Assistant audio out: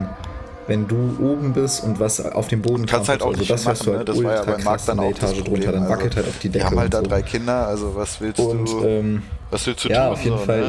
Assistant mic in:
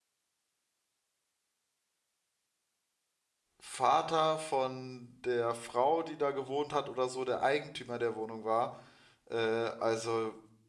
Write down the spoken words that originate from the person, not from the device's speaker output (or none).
Vater von der Frau, die da gewohnt hat oder so, der Eigentümer der Wohnung war. Äh, also,